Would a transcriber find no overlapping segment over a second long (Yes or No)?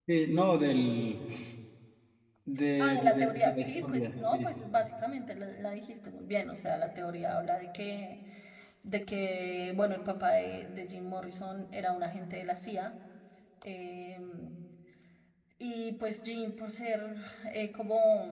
No